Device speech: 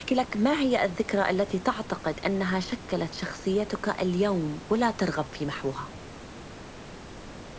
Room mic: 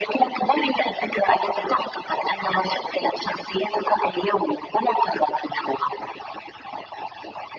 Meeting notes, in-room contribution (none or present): none